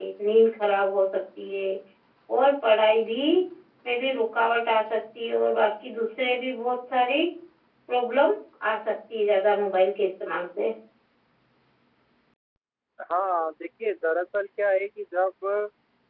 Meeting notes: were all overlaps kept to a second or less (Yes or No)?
Yes